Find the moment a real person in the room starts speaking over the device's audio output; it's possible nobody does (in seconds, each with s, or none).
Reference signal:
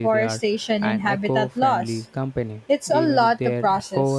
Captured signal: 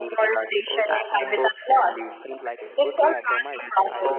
0.7 s